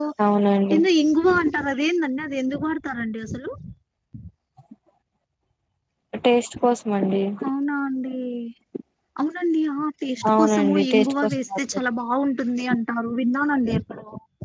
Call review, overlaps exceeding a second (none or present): present